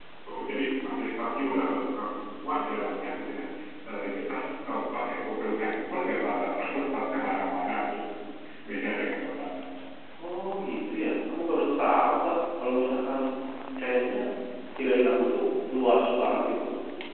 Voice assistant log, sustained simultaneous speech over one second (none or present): none